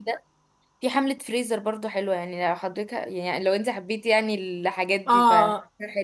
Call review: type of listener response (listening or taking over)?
taking over